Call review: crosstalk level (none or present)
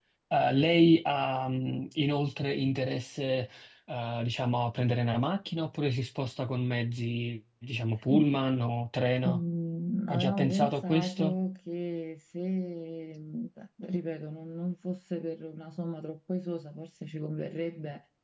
present